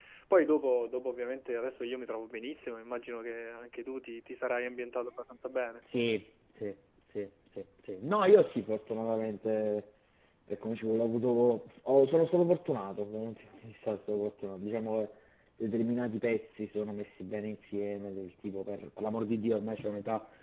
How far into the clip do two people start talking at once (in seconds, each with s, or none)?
none